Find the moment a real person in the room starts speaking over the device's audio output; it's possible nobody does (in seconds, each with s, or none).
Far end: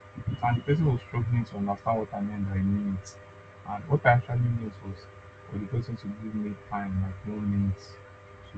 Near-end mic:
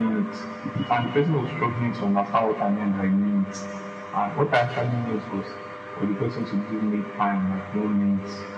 none